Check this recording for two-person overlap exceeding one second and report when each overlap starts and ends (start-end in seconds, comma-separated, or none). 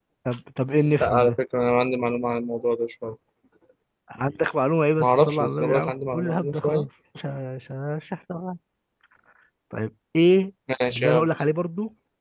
5.0-6.9